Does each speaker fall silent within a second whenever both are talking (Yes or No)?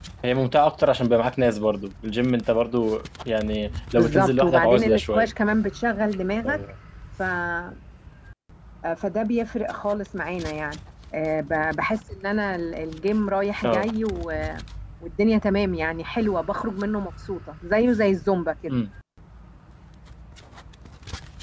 No